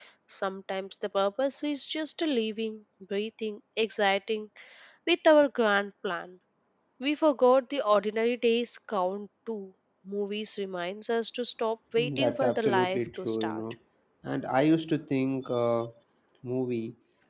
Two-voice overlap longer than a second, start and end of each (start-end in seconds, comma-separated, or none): 12.0-13.6